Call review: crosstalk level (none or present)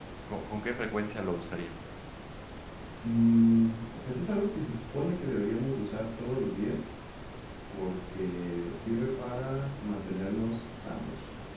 none